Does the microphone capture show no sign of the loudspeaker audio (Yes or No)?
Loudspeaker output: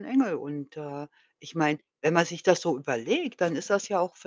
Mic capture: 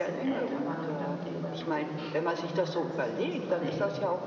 No